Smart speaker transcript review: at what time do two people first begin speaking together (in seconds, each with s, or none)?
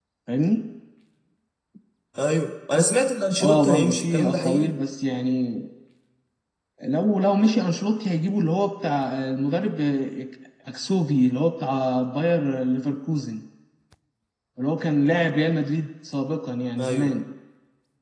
3.4 s